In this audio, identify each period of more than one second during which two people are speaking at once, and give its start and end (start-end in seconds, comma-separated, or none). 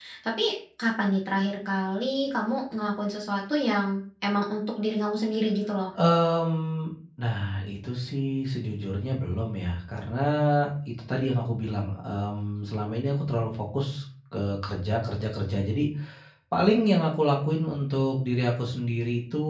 none